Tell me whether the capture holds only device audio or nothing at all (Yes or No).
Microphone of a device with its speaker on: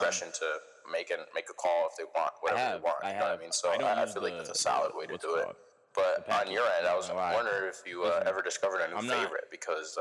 No